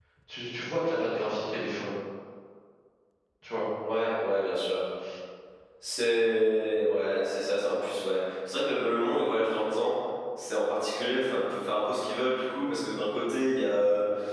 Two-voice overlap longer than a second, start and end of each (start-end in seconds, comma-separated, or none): none